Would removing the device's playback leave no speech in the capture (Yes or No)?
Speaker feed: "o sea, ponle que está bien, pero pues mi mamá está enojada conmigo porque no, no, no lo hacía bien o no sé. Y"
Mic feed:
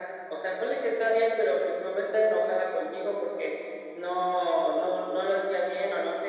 Yes